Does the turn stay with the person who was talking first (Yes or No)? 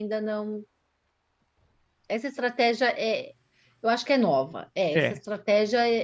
Yes